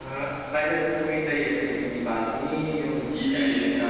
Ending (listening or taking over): taking over